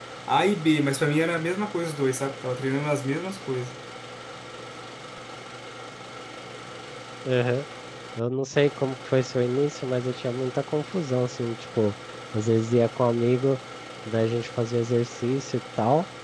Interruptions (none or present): none